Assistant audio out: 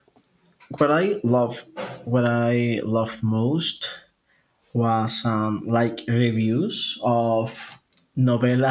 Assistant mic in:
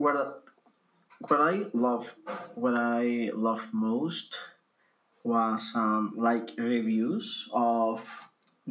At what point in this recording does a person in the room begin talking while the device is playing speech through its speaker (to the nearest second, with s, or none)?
none